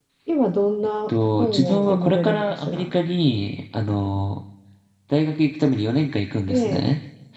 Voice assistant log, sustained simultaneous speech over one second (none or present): present